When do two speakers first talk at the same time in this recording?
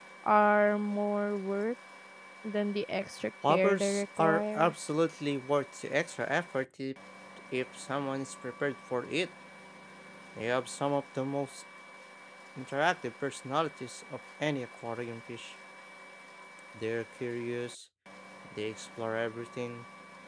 3.4 s

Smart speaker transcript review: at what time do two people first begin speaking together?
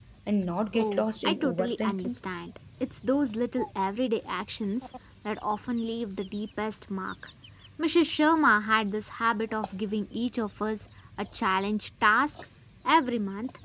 0.7 s

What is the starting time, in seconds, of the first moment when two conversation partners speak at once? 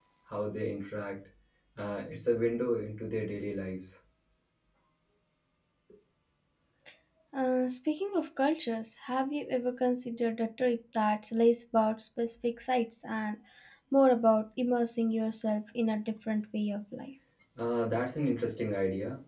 none

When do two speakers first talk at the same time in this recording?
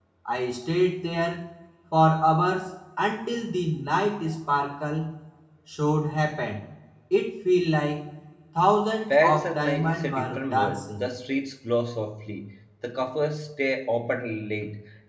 9.1 s

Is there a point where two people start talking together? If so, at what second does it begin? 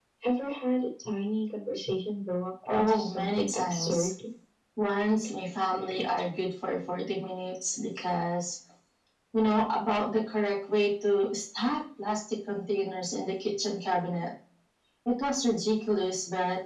2.7 s

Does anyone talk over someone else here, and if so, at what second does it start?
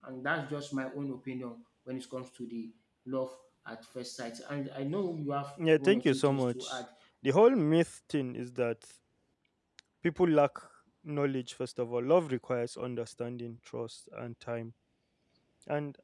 5.6 s

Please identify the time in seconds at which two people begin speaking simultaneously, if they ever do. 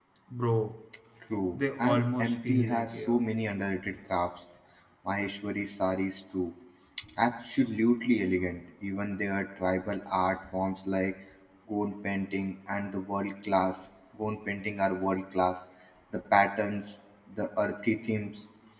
1.8 s

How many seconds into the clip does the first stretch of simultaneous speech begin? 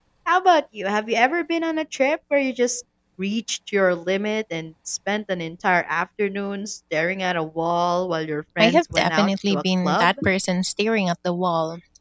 8.6 s

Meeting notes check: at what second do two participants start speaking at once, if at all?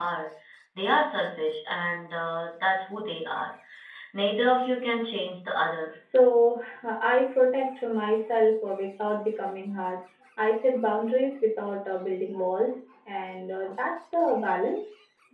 none

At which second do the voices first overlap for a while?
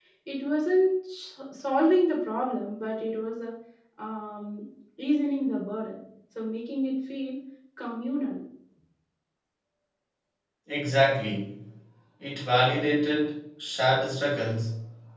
none

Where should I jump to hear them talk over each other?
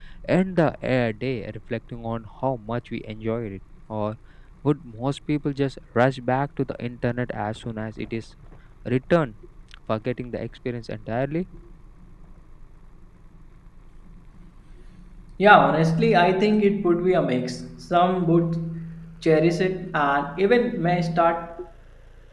none

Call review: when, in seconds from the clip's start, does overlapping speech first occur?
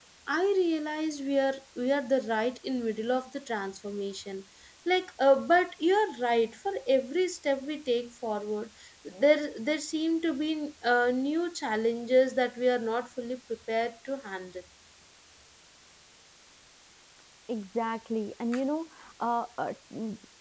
none

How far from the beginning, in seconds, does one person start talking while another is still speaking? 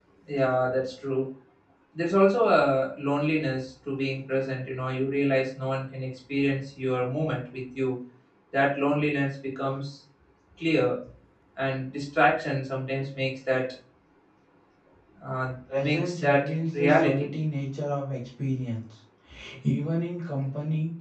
15.8 s

